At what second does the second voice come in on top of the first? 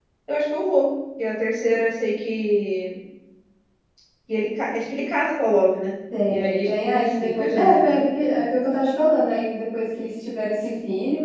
6 s

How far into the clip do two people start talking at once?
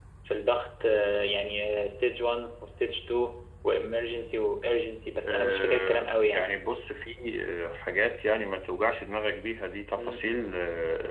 5 s

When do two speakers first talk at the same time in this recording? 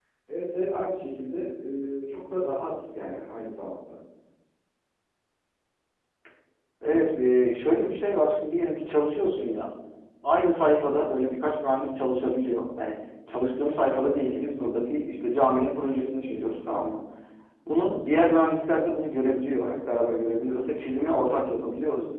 none

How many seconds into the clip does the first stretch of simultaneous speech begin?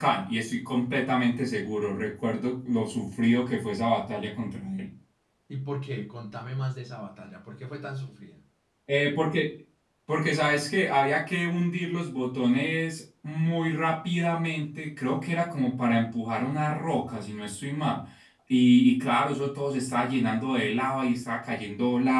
none

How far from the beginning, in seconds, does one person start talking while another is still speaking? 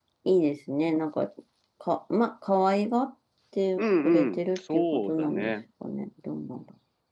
4 s

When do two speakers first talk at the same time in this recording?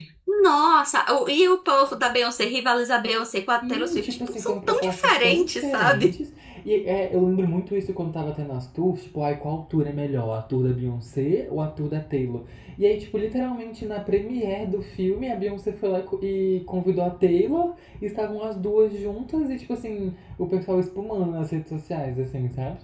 4 s

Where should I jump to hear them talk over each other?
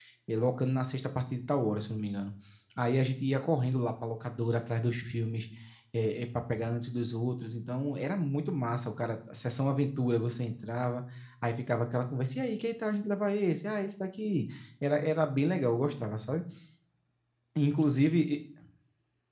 none

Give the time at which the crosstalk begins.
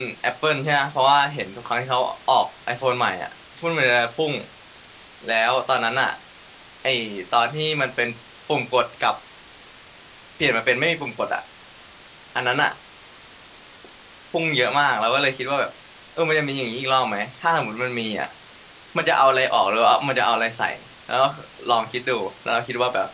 none

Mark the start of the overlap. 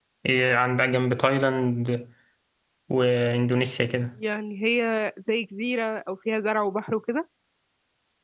none

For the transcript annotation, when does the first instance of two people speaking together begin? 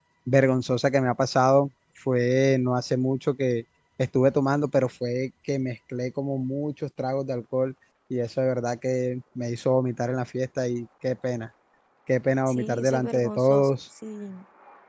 12 s

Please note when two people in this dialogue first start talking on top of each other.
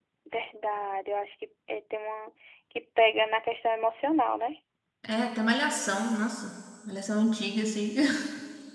none

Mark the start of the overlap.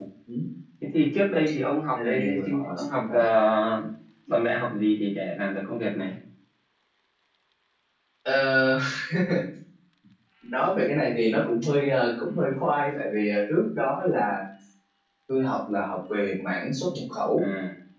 2 s

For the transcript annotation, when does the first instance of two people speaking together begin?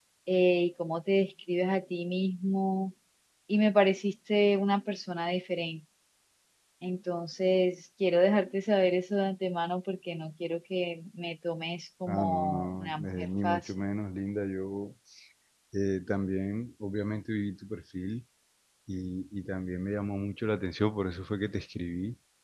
12 s

